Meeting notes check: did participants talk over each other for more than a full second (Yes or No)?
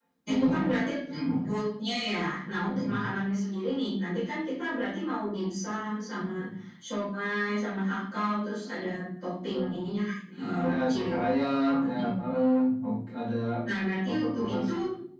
Yes